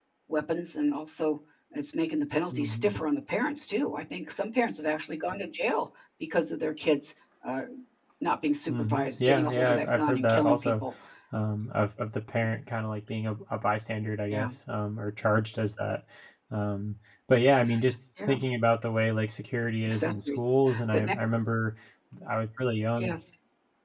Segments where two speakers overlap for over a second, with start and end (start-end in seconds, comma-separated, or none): 8.7-10.7